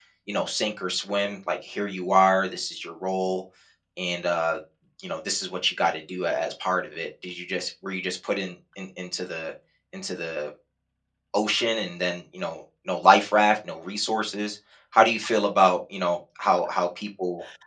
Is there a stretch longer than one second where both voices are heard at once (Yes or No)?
No